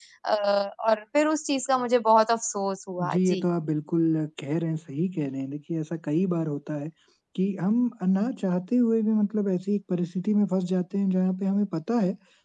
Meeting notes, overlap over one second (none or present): none